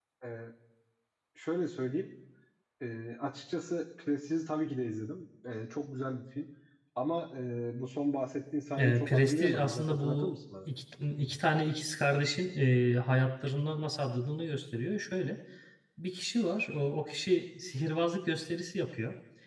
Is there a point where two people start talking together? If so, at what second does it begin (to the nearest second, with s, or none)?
9 s